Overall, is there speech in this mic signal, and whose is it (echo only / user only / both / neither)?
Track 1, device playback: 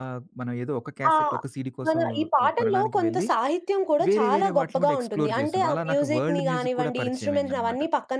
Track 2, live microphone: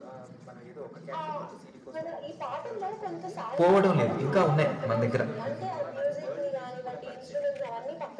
both